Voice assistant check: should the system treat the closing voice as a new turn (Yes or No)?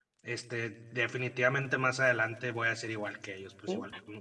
Yes